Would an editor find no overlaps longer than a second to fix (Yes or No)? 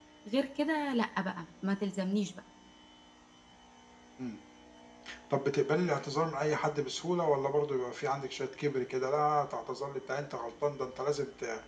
Yes